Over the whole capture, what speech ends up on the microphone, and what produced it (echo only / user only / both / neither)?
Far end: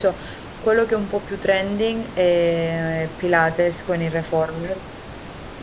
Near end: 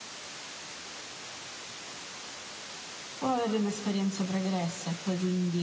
user only